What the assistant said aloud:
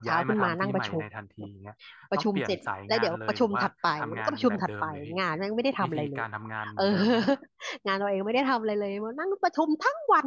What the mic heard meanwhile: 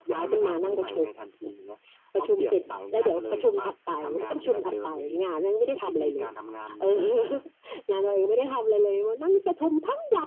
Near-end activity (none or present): none